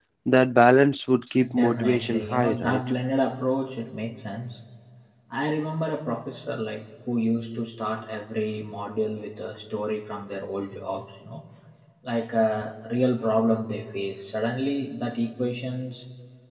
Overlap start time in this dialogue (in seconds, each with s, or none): 1.5 s